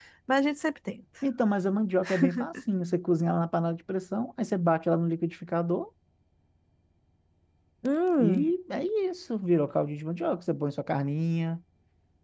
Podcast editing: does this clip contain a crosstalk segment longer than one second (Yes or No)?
No